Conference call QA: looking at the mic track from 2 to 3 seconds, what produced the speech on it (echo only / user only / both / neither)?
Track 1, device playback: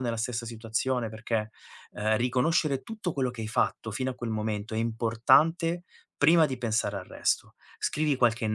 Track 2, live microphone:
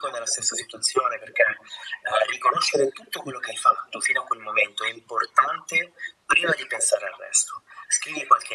echo only